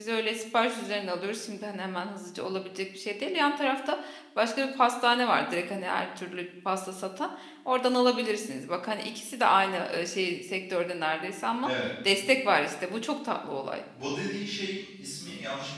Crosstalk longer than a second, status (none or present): none